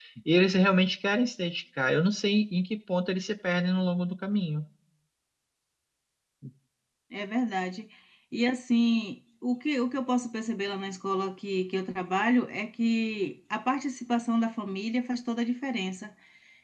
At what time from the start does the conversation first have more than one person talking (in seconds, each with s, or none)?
none